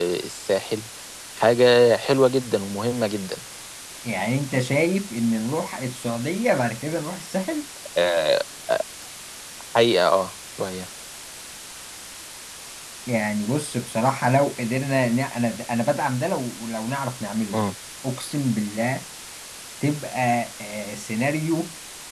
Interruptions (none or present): none